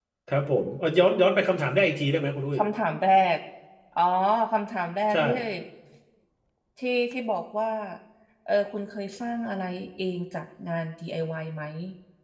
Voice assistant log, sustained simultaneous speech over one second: none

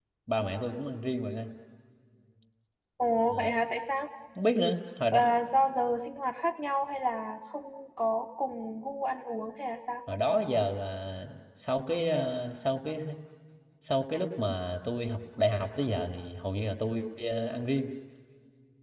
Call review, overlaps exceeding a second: none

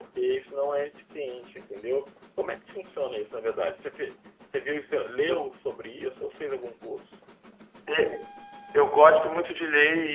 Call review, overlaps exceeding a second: none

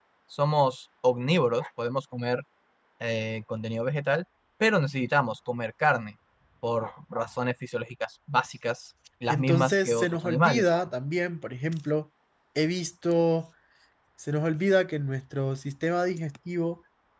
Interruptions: present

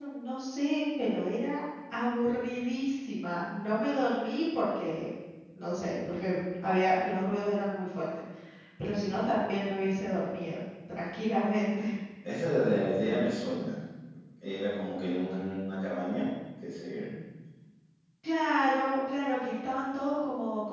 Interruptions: none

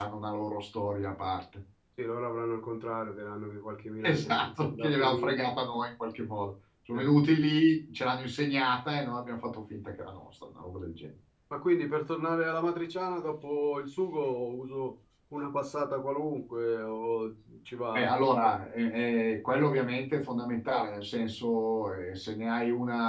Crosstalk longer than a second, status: present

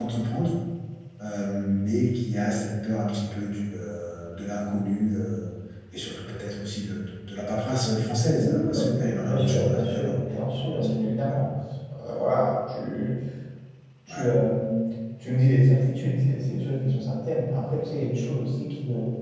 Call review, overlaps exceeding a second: present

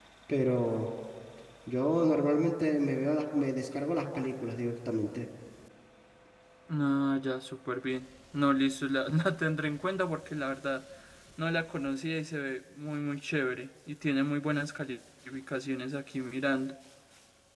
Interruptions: none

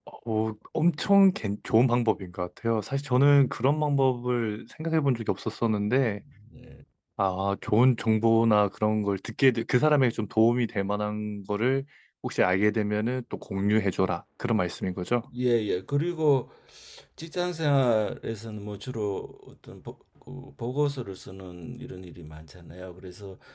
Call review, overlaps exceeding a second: none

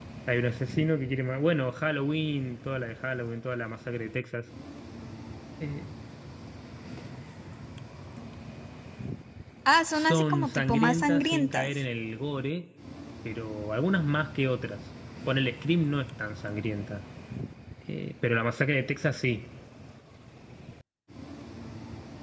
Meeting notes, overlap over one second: present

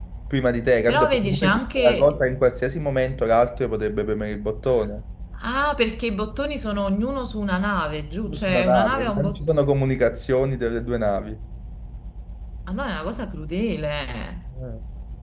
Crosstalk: present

